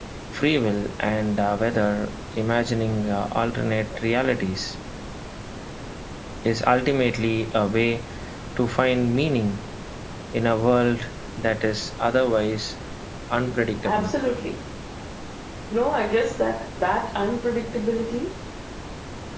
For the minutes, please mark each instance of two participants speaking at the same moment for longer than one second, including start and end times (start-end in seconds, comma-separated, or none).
none